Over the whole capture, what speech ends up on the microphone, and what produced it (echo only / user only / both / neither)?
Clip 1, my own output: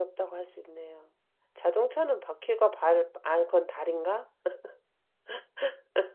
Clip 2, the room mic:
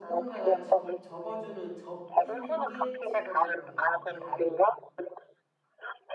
both